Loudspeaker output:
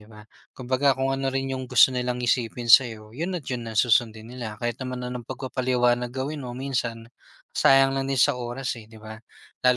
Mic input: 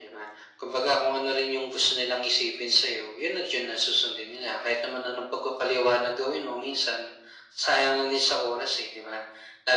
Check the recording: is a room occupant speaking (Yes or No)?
No